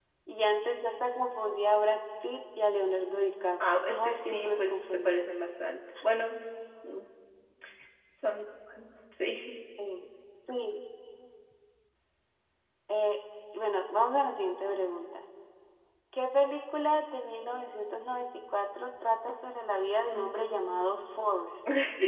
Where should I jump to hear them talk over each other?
3.7 s

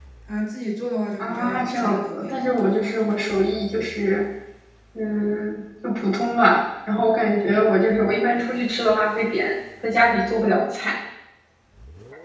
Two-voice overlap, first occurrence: 1.2 s

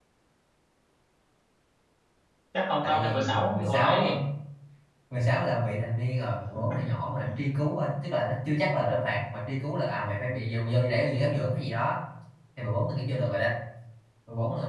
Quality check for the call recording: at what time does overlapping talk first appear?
2.8 s

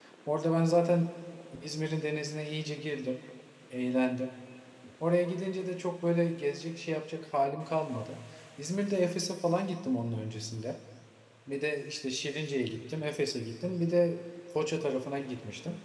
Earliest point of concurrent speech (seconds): none

